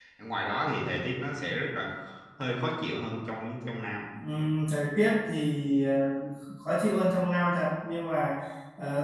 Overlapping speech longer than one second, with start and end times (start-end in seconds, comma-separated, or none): none